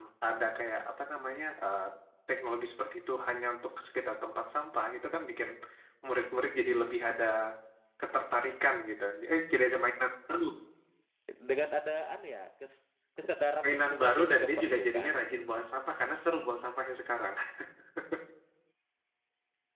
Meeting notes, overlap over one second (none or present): present